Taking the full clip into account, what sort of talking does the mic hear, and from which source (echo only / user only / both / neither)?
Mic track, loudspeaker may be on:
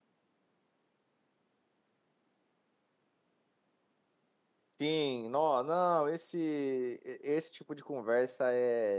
user only